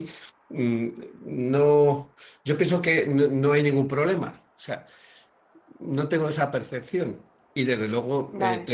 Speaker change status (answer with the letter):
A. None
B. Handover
A